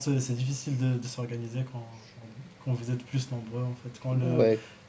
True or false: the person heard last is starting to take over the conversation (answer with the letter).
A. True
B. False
B